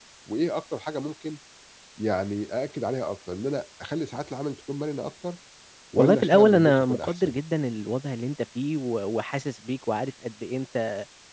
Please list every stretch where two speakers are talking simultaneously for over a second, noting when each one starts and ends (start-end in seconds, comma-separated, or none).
6.0-7.4